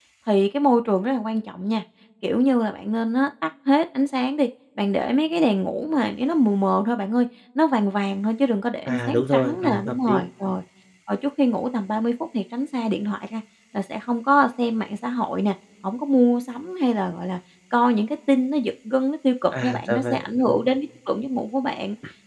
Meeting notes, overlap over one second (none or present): present